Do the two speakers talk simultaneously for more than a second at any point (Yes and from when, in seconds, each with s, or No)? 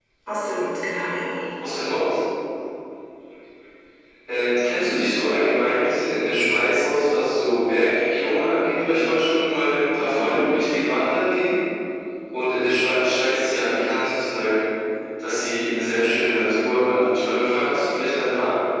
No